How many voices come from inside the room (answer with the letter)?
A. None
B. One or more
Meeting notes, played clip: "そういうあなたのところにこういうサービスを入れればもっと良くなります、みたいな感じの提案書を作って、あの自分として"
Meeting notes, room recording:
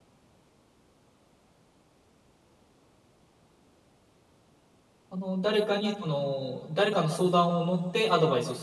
B